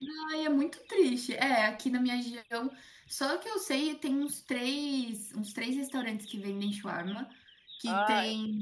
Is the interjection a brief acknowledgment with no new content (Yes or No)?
Yes